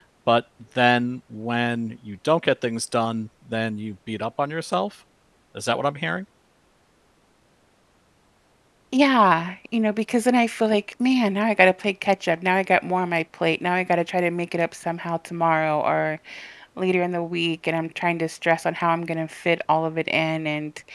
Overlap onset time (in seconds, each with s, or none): none